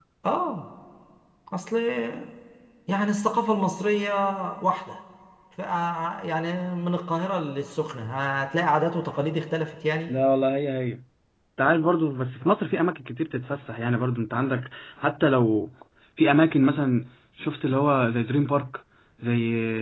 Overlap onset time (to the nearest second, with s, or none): none